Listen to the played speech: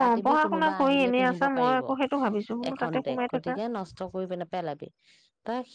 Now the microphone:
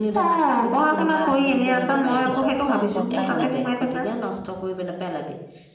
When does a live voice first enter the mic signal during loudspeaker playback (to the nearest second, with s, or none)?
1 s